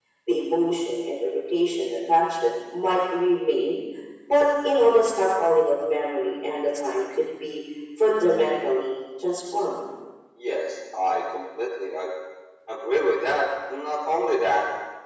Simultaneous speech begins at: none

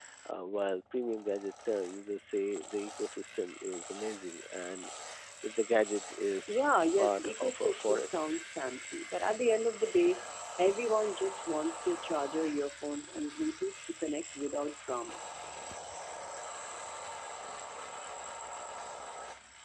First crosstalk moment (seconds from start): 7 s

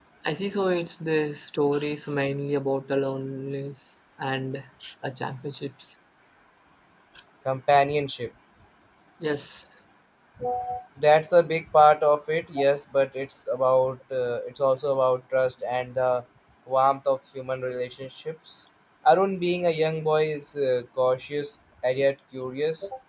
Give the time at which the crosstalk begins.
none

